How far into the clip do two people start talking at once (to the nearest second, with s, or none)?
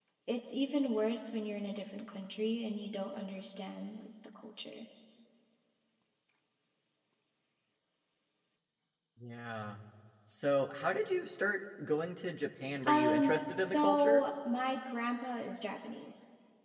13 s